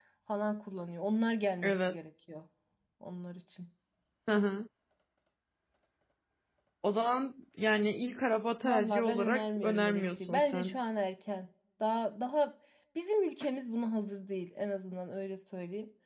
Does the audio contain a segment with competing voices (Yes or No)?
Yes